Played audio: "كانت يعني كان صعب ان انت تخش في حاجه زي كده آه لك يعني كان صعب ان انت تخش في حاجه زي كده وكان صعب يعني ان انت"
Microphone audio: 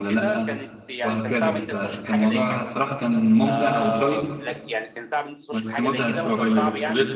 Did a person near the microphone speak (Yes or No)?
Yes